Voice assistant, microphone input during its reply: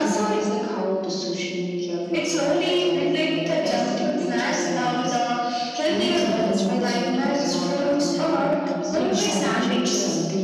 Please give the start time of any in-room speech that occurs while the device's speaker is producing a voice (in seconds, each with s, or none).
6.2 s